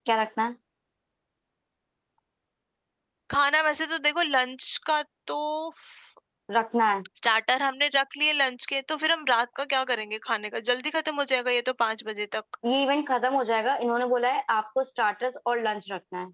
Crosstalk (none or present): none